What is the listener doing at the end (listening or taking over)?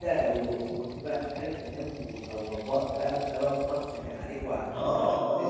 taking over